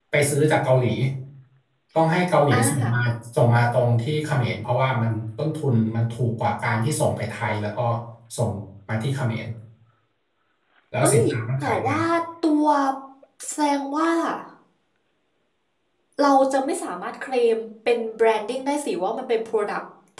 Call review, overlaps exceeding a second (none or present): none